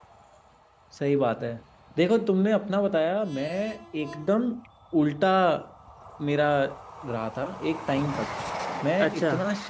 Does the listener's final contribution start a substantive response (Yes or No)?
No